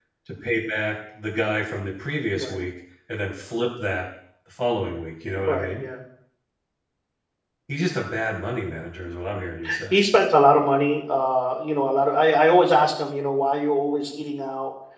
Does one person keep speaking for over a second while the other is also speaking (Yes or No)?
No